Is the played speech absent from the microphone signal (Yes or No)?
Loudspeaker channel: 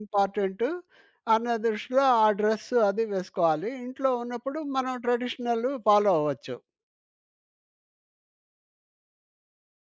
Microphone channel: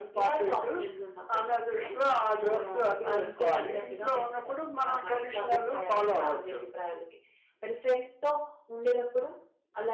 No